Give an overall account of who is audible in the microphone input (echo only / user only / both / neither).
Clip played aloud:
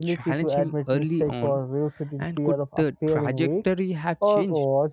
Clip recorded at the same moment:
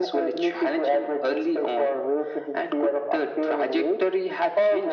echo only